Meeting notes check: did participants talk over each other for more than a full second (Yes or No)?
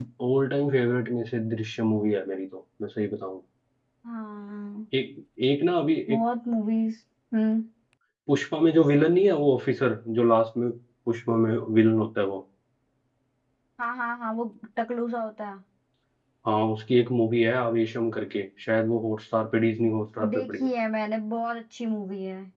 No